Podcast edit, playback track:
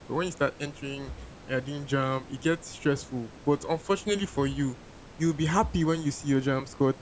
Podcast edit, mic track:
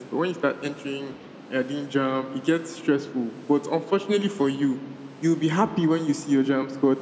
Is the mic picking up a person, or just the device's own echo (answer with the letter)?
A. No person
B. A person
A